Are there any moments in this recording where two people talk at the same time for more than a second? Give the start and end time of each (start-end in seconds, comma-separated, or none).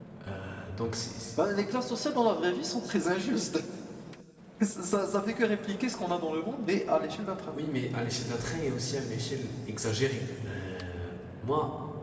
none